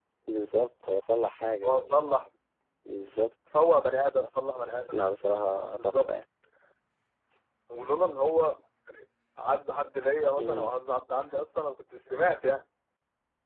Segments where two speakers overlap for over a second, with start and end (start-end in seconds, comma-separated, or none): none